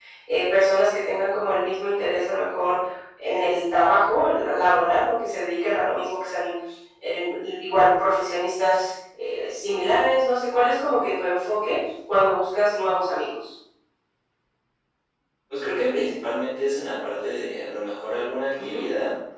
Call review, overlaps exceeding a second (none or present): none